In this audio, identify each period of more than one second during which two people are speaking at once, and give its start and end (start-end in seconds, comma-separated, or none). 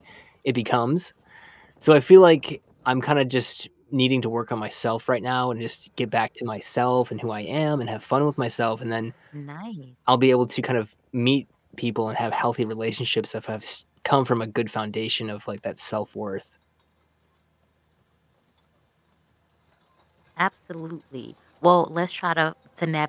none